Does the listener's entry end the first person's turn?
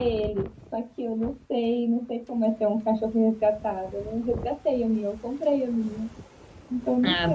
Yes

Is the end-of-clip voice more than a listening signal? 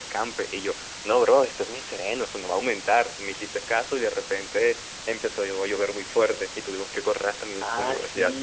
Yes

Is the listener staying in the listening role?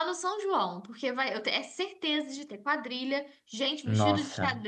Yes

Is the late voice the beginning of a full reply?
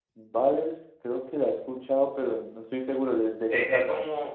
Yes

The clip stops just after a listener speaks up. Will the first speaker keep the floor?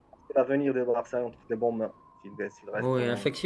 No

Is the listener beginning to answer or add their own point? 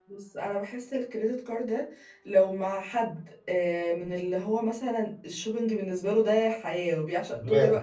No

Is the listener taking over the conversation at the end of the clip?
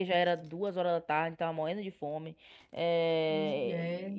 No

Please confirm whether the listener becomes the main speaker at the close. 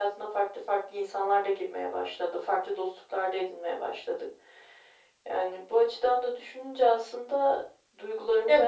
No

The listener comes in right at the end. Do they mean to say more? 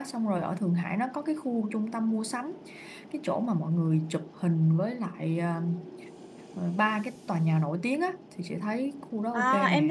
Yes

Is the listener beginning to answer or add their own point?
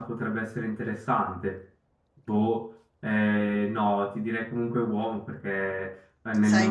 No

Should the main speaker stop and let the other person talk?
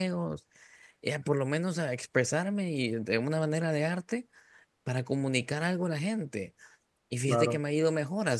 No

